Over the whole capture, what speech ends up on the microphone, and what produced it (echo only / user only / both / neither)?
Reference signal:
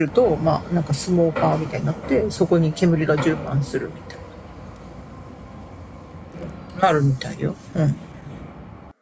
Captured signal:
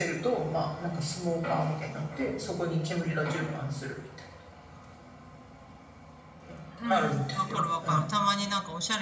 both